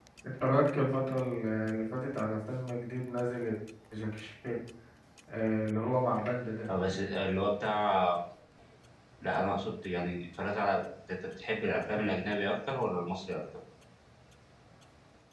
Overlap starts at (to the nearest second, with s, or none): none